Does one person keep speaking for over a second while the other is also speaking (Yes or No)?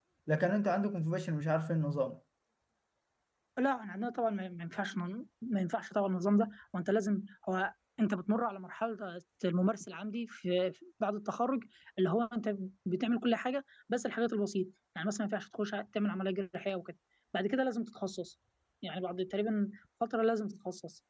No